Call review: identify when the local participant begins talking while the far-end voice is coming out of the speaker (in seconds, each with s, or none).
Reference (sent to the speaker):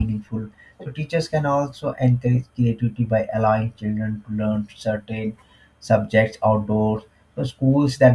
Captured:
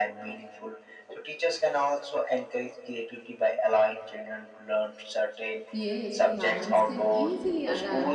5.7 s